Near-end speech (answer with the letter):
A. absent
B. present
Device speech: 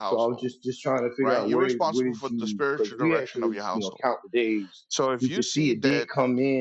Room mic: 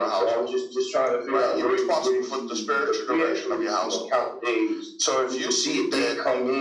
A